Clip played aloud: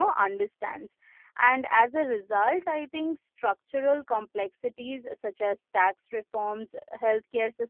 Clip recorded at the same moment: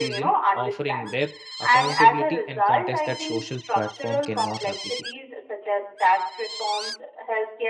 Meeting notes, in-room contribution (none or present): present